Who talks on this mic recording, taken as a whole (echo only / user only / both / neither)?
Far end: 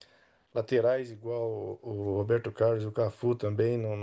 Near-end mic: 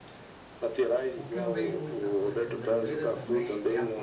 both